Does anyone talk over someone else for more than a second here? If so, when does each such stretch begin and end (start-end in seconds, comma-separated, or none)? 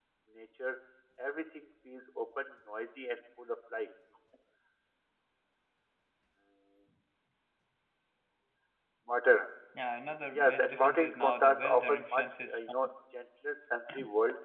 10.3-12.6